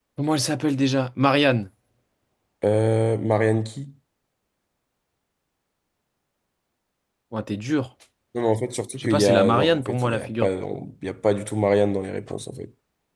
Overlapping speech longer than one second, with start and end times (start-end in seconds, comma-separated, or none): 9.0-10.5